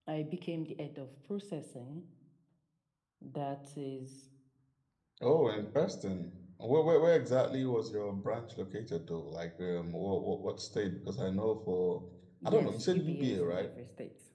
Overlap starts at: 12 s

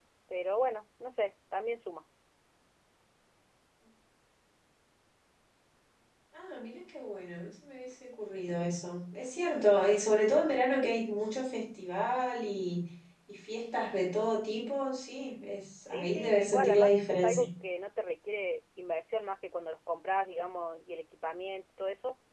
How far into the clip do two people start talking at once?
16 s

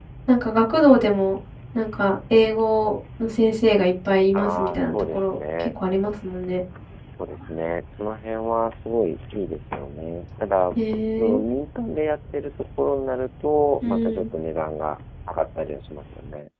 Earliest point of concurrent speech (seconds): 4 s

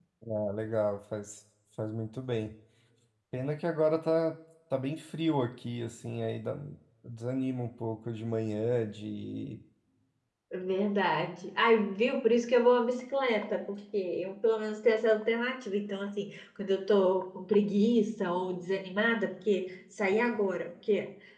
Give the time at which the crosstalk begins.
none

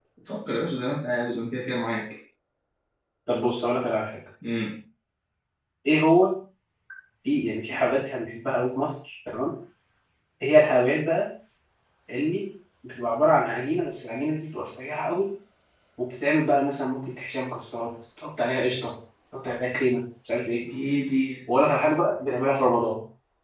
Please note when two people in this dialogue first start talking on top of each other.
none

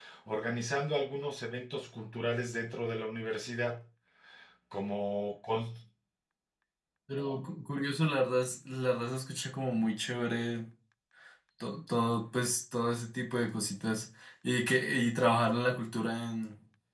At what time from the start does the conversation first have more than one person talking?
none

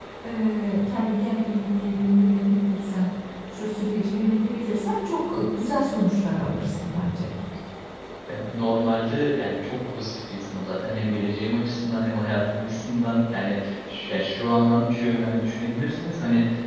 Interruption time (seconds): none

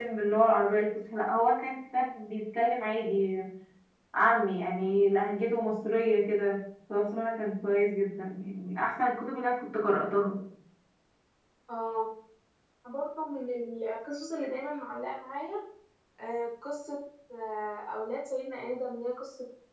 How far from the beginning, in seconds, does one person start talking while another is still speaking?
none

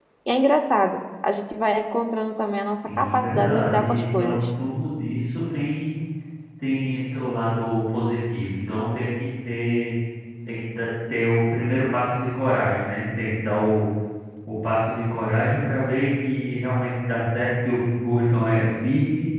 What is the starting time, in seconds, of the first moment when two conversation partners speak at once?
3 s

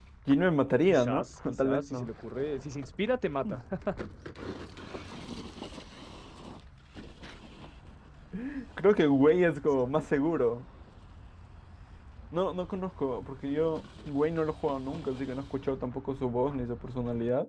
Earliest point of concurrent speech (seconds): 1 s

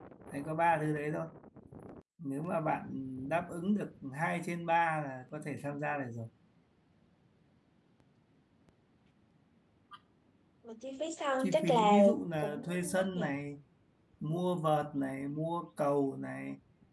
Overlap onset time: 11 s

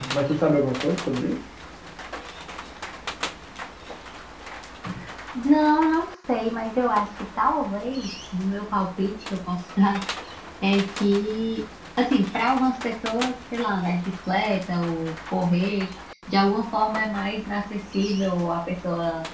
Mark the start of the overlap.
none

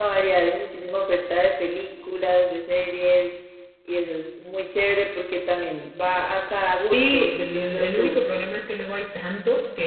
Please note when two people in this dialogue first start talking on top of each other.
7 s

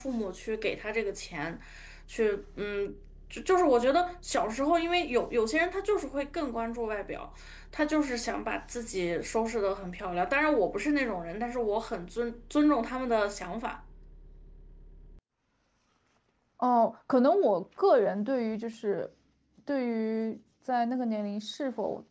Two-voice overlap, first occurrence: none

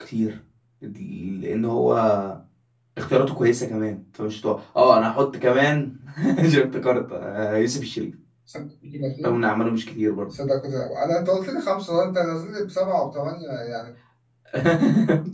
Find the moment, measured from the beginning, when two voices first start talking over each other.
none

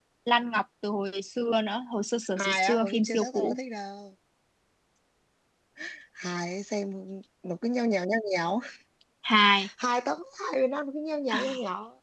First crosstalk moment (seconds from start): 2 s

